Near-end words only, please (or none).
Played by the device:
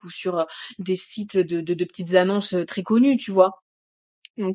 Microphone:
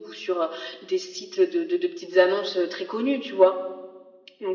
none